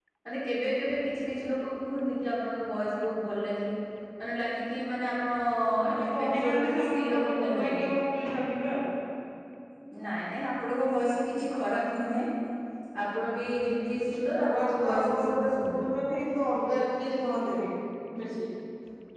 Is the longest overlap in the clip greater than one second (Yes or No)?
Yes